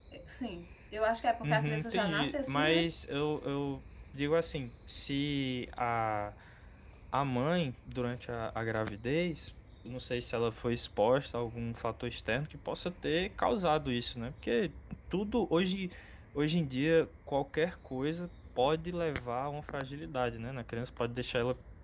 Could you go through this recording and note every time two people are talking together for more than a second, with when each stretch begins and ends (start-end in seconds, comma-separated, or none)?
1.4-2.9